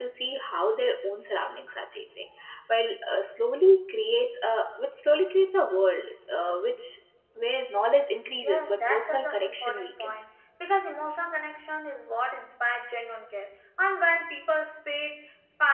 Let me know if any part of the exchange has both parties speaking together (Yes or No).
Yes